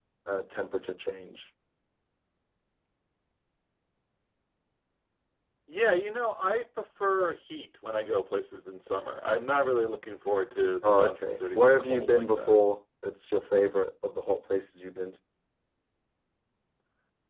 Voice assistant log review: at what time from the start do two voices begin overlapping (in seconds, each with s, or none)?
10.8 s